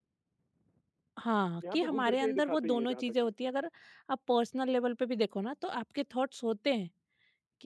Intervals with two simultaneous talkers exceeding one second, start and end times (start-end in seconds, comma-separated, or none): 1.7-3.3